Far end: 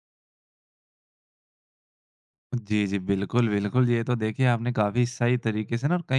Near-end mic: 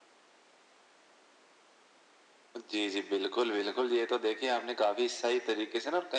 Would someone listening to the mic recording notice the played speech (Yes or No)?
Yes